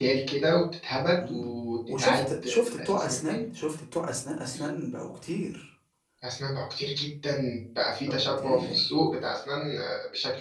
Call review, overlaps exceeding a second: present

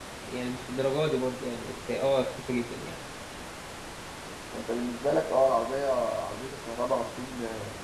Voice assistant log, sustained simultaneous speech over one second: none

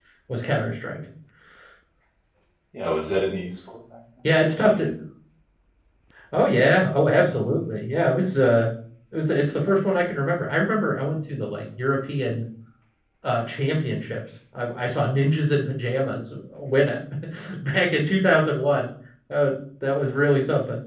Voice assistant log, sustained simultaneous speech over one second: none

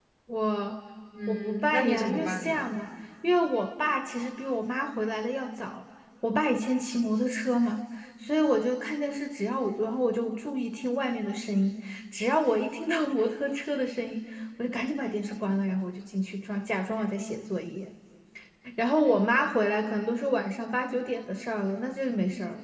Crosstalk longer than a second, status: present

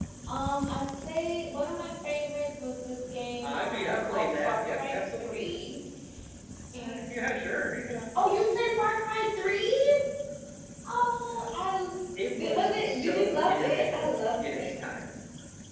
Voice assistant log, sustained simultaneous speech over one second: present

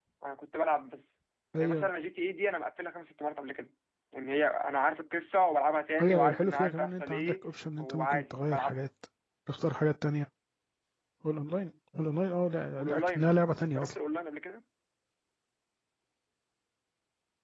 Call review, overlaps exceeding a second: present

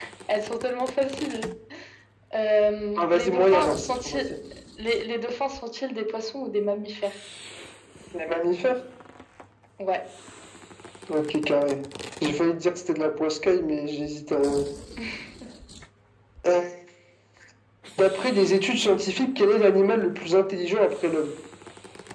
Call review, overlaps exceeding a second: present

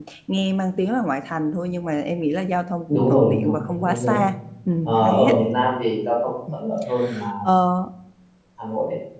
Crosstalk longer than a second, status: present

